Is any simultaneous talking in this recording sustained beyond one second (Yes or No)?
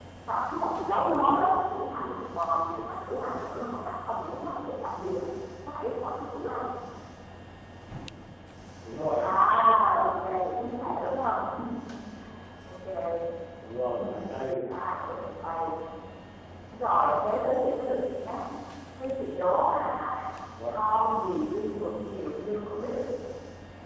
No